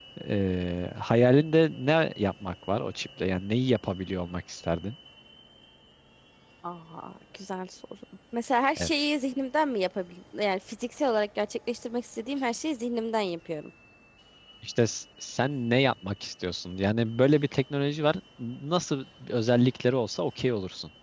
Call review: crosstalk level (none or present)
none